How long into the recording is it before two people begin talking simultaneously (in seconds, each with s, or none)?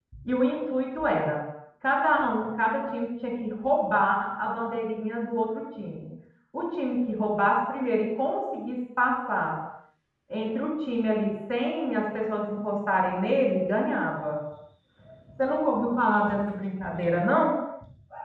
none